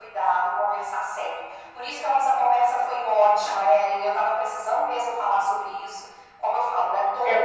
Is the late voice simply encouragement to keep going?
Yes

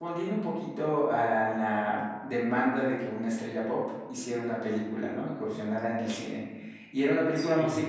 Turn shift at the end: No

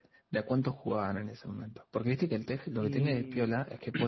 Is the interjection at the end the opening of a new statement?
No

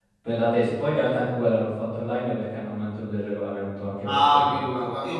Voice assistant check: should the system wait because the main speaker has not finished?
No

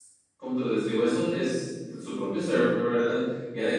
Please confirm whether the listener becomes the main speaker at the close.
No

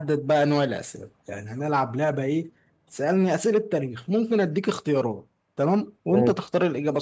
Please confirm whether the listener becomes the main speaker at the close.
No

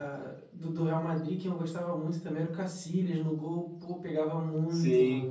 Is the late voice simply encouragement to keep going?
No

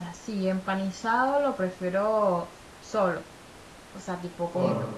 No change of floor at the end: Yes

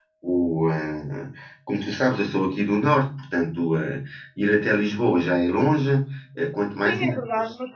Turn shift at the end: Yes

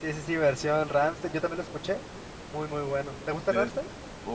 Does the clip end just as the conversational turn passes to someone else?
Yes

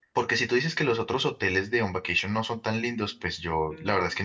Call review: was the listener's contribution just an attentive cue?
Yes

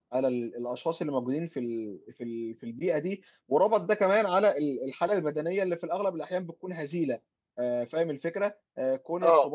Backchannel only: Yes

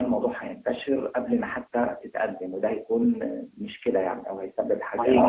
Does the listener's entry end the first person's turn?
Yes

